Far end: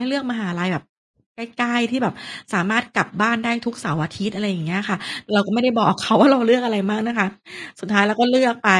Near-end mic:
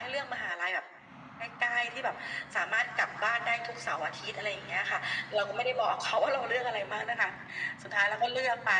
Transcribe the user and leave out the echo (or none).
none